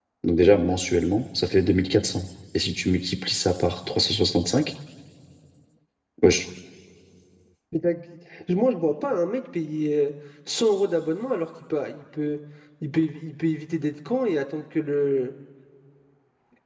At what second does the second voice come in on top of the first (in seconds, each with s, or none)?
none